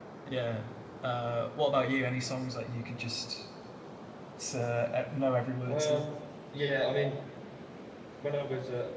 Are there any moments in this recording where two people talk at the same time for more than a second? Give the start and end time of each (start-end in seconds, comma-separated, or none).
none